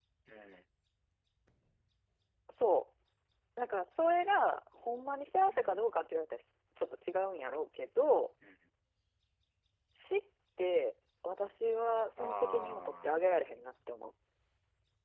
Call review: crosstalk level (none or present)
present